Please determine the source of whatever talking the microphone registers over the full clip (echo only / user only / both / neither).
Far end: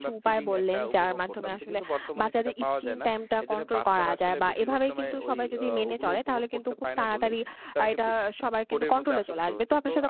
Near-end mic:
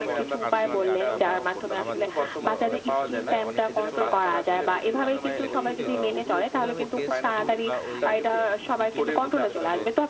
both